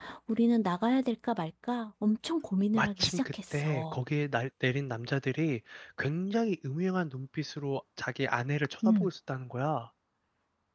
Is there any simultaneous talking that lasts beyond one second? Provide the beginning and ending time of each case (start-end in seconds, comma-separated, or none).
2.7-4.0